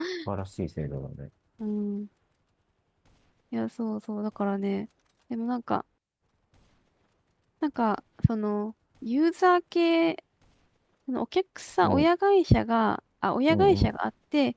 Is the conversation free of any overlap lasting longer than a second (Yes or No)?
Yes